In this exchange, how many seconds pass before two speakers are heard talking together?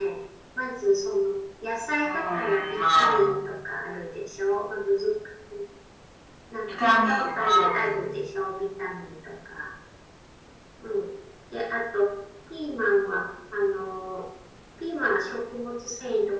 2.0 s

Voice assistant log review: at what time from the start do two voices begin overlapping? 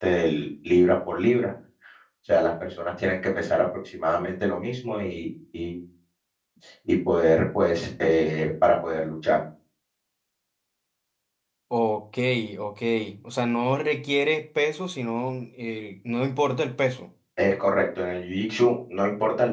none

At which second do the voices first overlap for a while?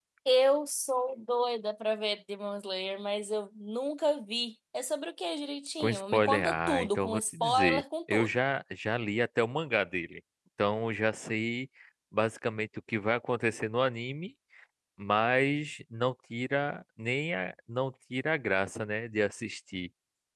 5.8 s

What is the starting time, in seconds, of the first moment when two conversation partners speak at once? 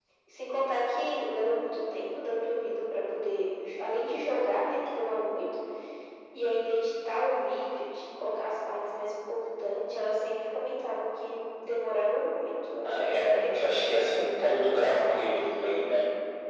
12.8 s

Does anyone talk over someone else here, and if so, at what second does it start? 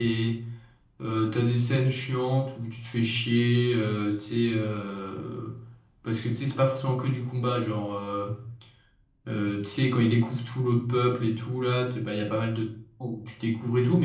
none

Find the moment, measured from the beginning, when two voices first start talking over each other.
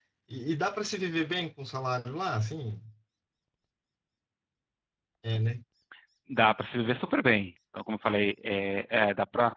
none

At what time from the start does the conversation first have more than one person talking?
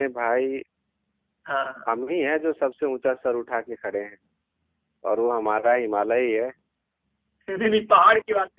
none

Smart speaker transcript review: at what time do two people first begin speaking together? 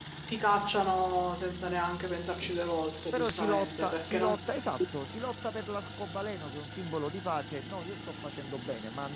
3.1 s

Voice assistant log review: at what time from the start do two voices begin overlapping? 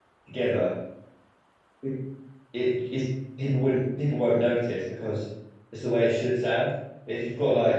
none

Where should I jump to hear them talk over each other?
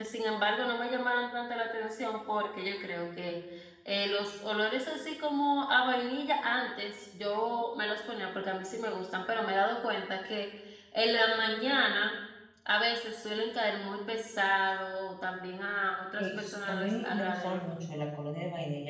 16.2 s

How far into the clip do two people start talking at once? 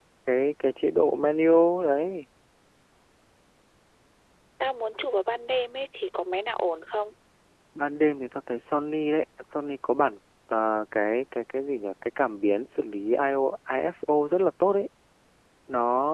none

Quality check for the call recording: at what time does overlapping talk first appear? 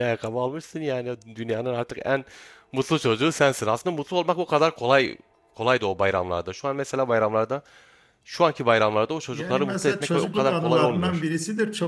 9.3 s

